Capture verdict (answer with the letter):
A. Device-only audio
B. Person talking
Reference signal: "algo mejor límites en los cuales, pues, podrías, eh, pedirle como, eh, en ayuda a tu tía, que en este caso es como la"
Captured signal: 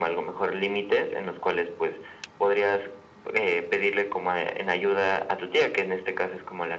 A